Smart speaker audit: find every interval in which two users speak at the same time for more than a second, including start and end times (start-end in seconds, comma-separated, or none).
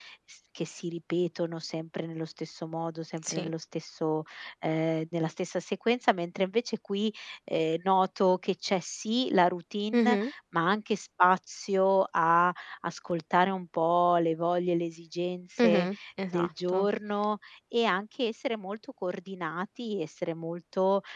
none